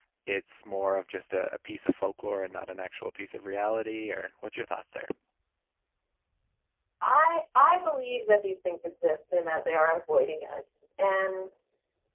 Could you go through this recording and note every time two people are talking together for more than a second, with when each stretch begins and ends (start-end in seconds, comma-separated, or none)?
none